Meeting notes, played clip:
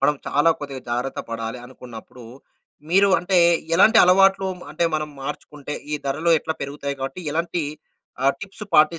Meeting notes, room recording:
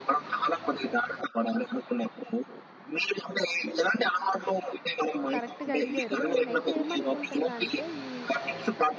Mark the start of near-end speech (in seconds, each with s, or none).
5.3 s